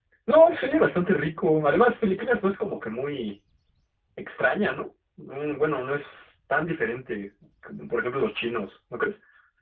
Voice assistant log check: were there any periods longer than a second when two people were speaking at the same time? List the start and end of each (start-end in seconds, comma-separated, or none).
none